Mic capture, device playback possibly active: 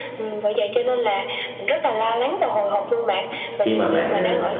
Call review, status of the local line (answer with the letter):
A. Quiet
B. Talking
B